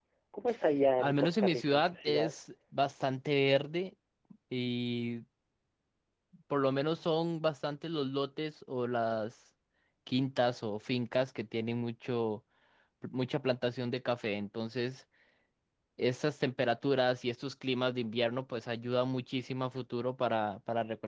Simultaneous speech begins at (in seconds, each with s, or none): 1.0 s